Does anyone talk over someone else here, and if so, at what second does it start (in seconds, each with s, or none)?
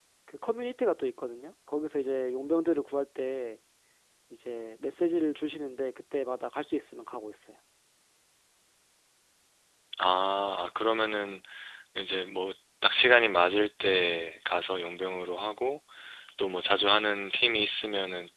none